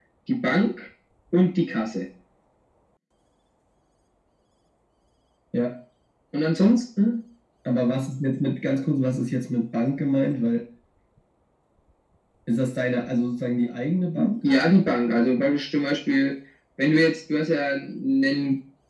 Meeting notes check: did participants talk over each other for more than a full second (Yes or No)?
No